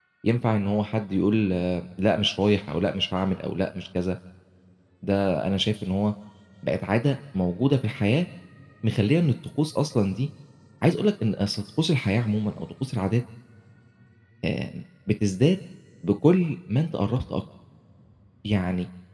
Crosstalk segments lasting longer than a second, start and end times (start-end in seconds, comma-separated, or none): none